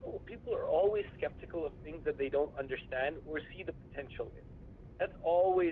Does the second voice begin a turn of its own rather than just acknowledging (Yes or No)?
No